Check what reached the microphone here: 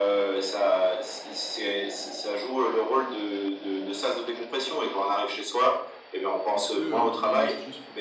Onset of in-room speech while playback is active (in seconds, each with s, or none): 6.5 s